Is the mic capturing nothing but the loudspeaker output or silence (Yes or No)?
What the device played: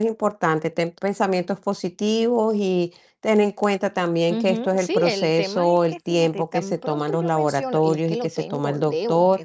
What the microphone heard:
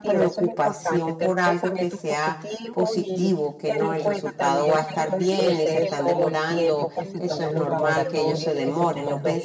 No